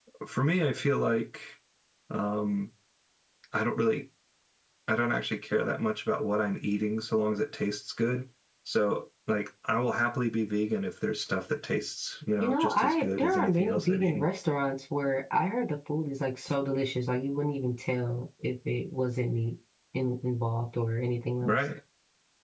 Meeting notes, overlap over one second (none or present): present